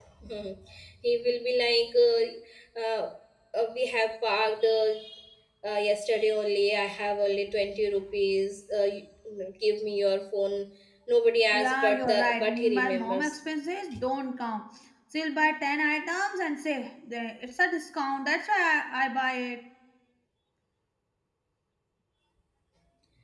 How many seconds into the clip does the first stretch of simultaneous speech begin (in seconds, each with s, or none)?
11.5 s